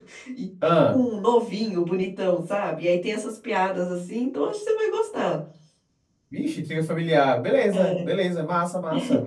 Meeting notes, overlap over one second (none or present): none